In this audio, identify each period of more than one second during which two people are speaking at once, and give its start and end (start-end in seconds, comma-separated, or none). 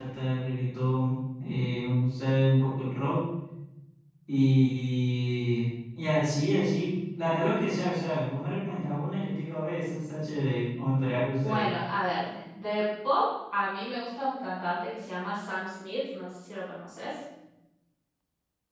none